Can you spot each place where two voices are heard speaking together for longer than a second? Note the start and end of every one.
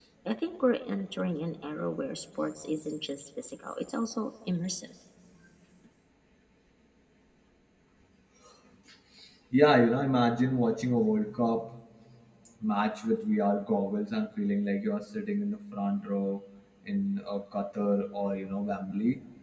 none

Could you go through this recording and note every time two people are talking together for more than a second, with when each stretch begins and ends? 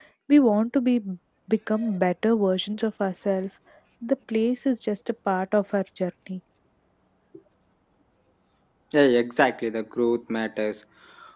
none

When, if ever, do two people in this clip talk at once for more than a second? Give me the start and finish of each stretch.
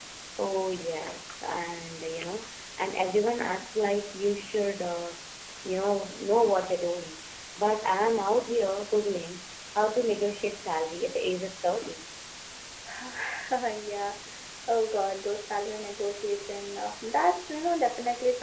none

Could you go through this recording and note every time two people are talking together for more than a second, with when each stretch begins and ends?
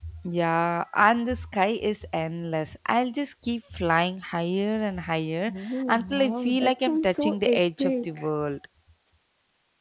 5.5-8.2

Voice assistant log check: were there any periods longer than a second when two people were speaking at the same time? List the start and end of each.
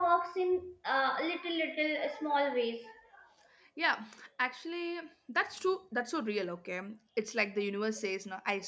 none

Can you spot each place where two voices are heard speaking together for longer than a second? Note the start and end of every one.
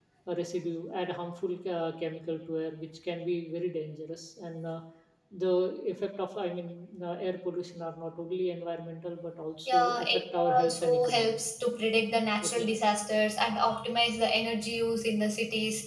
9.7-11.4

